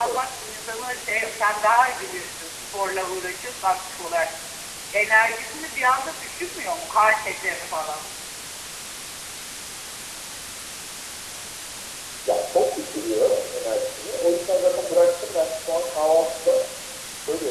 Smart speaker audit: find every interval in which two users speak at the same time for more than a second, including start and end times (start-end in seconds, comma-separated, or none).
none